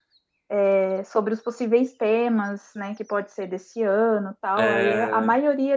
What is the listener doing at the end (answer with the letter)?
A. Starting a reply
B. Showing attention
B